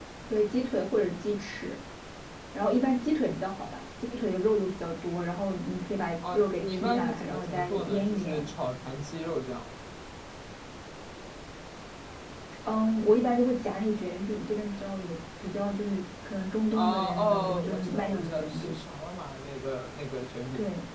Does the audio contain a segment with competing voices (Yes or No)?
Yes